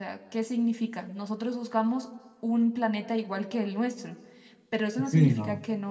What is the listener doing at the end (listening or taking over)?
listening